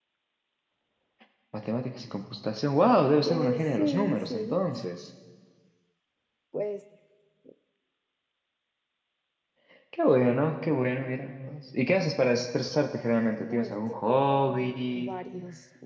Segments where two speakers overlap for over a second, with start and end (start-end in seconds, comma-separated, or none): 3.2-4.6, 13.5-15.1